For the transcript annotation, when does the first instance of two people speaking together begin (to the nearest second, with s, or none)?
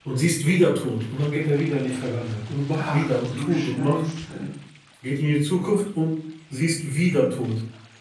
3 s